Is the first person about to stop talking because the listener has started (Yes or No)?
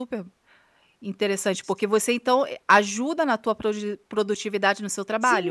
Yes